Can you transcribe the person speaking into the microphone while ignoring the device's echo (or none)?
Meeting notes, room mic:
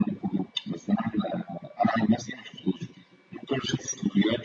none